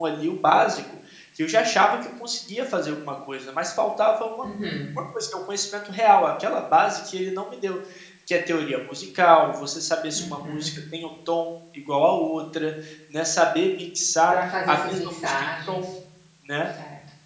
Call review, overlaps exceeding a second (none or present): present